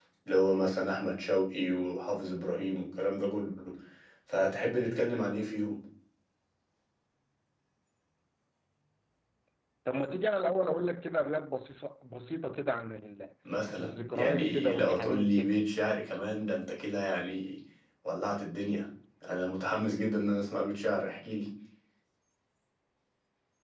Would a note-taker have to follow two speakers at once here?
Yes, from 13.8 s

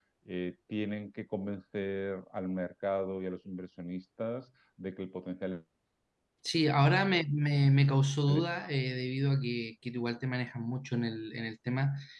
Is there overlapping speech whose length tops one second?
No

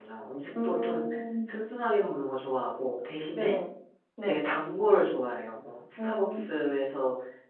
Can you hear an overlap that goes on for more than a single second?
No

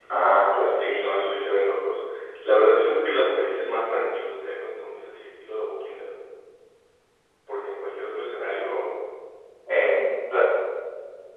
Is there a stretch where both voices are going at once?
No

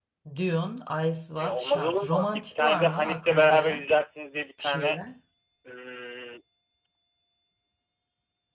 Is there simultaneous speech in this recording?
Yes, from 1.4 s

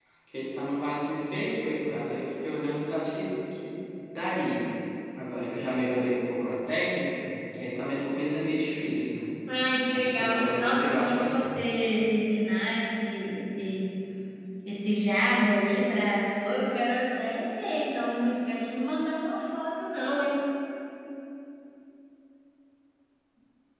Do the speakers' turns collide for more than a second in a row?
Yes, from 9.9 s

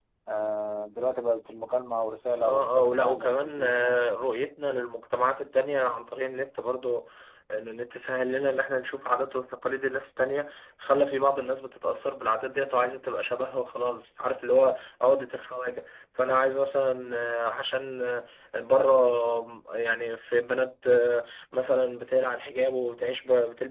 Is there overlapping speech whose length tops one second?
Yes, from 2.4 s

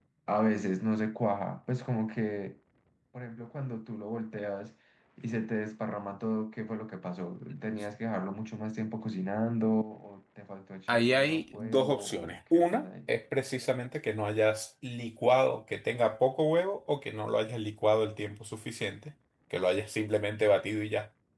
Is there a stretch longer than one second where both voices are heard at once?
Yes, from 10.9 s

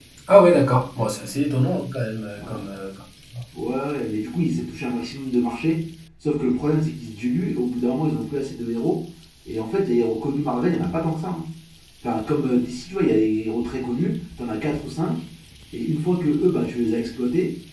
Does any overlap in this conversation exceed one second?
No

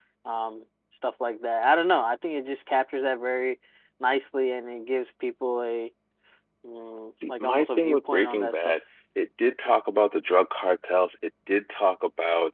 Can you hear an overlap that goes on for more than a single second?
Yes, from 7.3 s

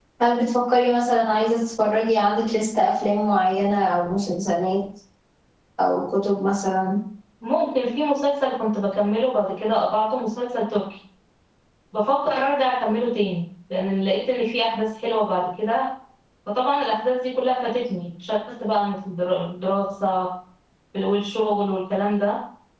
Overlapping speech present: No

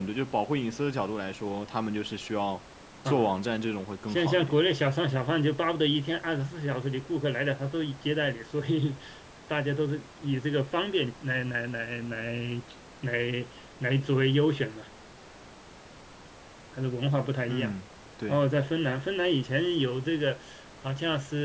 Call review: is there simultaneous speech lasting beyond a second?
No

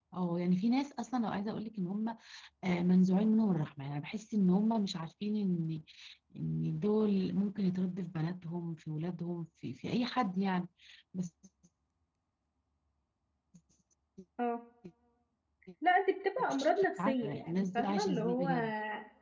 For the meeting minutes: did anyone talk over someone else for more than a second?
Yes, from 16.4 s

